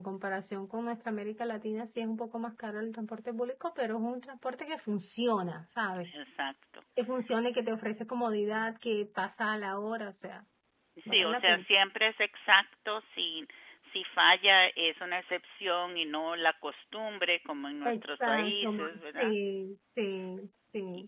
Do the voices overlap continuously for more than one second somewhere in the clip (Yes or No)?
Yes